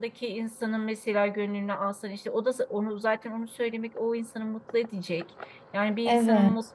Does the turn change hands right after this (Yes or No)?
No